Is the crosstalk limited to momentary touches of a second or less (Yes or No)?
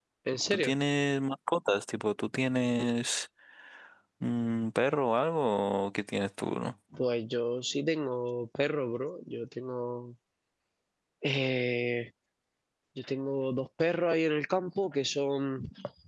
Yes